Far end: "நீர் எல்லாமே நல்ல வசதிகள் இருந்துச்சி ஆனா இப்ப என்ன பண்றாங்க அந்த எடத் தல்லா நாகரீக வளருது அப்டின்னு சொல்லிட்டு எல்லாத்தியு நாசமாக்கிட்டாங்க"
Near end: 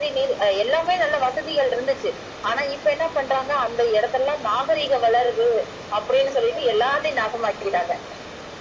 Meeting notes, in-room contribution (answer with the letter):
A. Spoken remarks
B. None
B